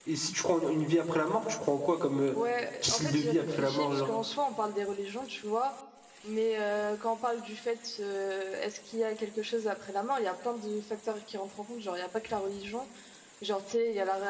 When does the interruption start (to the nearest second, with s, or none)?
3 s